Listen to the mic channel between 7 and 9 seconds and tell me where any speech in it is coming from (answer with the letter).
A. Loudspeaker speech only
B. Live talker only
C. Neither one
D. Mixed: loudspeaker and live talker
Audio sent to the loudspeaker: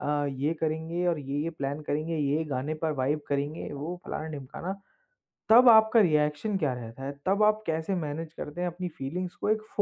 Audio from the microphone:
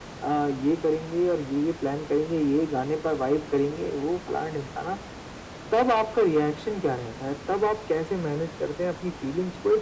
A